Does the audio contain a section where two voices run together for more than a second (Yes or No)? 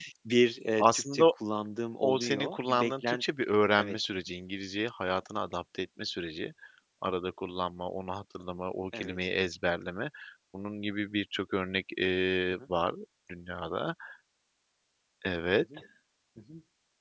Yes